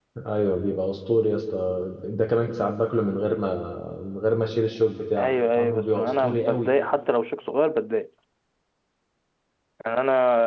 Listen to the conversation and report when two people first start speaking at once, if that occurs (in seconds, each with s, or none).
5.2 s